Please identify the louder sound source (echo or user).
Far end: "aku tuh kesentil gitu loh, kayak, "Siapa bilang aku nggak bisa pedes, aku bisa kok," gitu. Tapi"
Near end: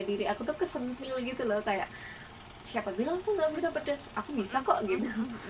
echo